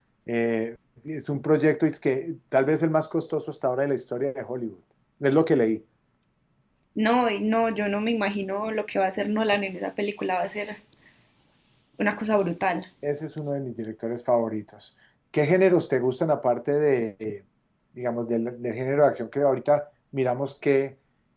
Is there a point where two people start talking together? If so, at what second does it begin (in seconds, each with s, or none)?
none